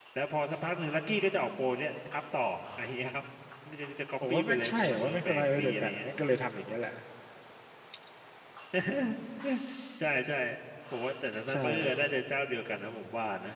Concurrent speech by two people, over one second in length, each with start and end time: 4.3-6.0

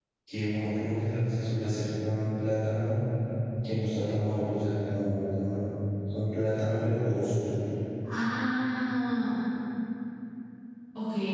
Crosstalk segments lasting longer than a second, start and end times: none

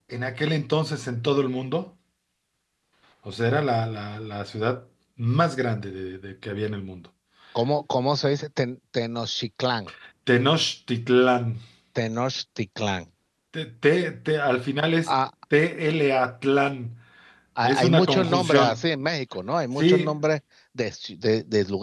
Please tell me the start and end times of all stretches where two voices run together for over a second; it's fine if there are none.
17.6-18.8

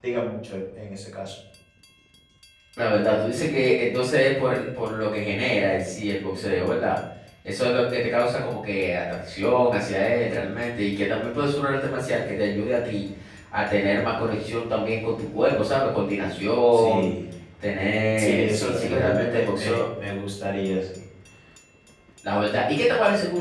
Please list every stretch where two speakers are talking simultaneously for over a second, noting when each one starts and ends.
18.2-19.8

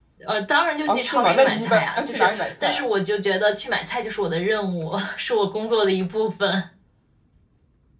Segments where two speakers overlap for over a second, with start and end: 0.9-2.9

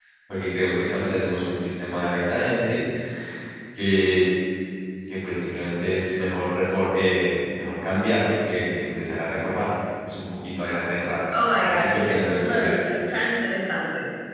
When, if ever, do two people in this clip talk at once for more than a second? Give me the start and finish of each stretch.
11.3-12.9

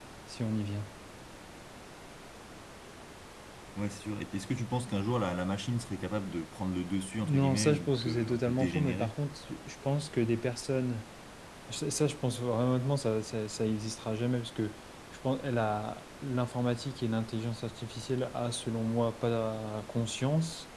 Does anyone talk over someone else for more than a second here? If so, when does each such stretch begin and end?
7.2-9.1

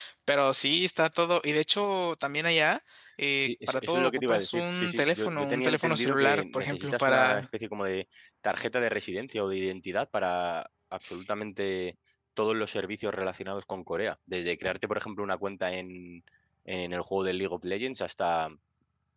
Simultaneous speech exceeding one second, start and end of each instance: 3.4-7.4

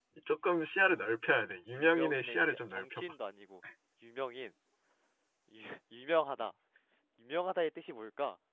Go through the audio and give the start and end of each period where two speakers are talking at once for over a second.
1.8-3.1

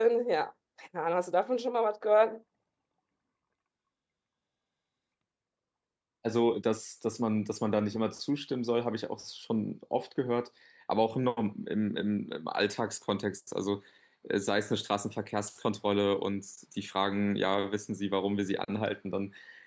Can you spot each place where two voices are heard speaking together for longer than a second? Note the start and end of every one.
none

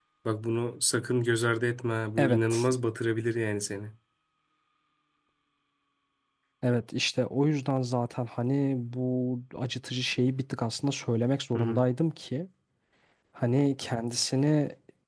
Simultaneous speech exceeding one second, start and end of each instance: none

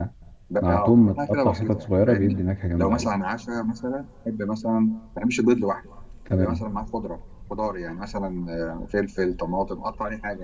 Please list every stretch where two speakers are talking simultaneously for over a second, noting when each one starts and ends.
0.6-2.4

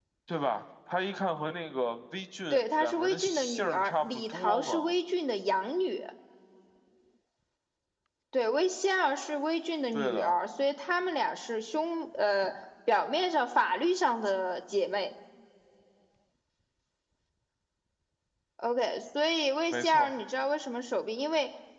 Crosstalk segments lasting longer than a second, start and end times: 2.5-4.9

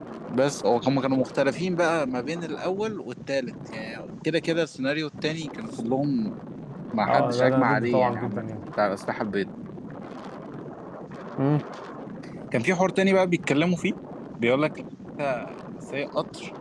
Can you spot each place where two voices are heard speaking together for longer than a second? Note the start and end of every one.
7.1-8.4

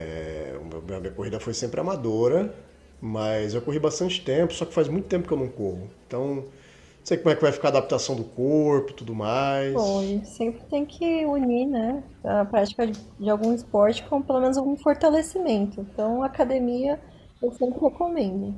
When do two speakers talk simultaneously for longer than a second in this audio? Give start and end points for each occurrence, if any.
none

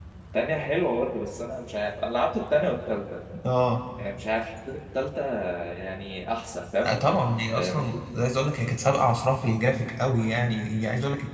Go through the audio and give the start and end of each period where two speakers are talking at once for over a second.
none

